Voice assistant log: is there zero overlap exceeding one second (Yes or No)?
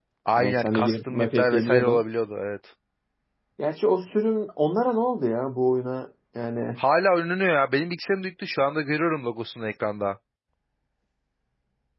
No